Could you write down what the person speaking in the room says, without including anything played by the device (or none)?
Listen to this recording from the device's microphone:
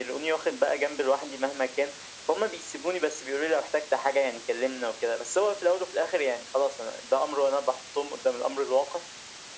none